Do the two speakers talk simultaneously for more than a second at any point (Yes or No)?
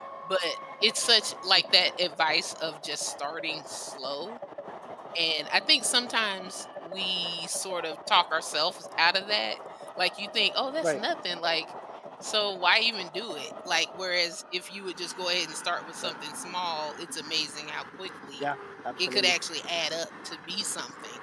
No